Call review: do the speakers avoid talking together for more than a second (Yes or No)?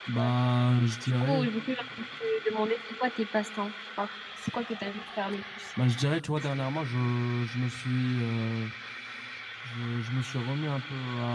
Yes